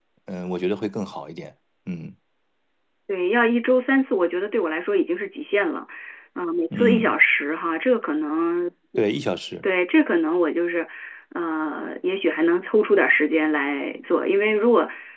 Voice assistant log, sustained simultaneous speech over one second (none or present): none